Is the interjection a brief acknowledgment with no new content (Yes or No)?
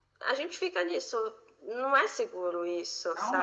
No